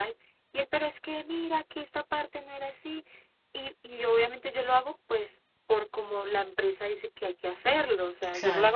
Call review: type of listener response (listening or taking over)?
listening